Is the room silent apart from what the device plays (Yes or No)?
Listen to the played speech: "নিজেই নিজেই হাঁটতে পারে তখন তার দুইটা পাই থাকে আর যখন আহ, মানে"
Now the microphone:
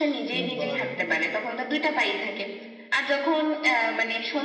No